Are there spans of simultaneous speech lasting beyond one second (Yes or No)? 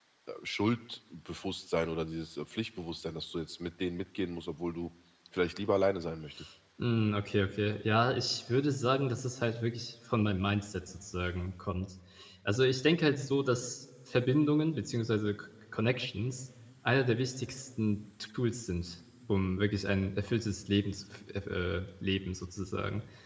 No